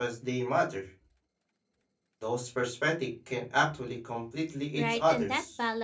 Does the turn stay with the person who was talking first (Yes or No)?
No